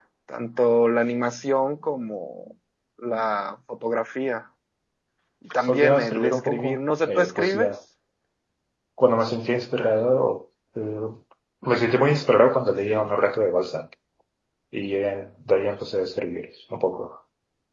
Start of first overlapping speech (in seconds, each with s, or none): 5.7 s